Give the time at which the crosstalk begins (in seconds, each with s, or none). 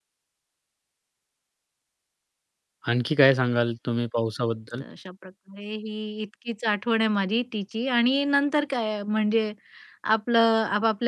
none